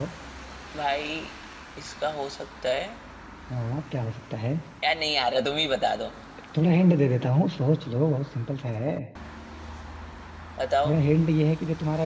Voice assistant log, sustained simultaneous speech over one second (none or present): none